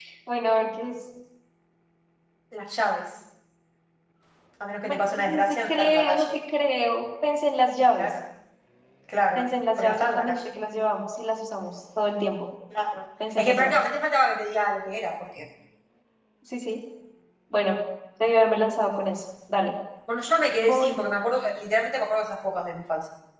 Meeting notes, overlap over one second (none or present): present